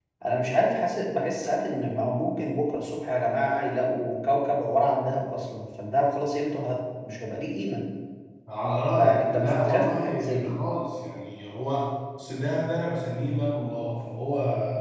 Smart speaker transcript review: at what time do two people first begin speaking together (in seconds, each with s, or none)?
9.0 s